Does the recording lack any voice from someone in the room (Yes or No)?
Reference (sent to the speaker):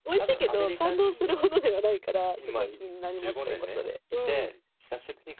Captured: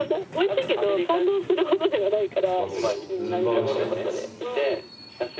No